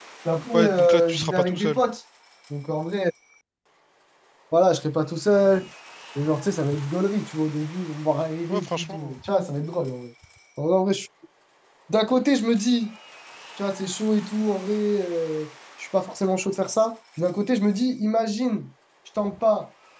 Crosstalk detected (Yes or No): Yes